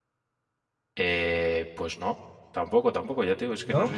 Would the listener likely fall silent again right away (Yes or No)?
Yes